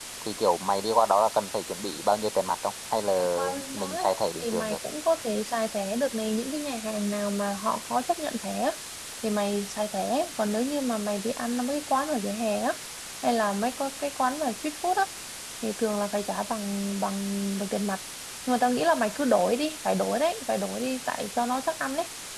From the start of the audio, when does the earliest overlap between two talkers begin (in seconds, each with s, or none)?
3.4 s